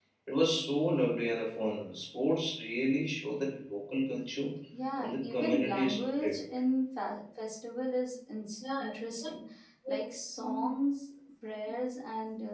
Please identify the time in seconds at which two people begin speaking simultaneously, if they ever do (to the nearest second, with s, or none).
5 s